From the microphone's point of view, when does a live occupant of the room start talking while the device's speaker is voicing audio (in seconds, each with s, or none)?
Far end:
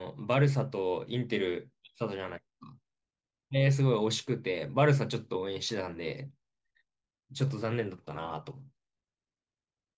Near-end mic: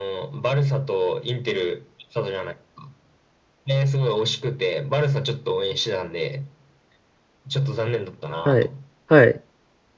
8.4 s